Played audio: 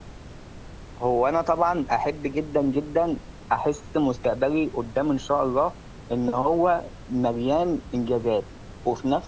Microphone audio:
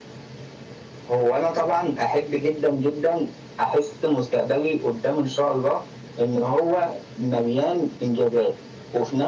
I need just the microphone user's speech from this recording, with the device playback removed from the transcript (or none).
none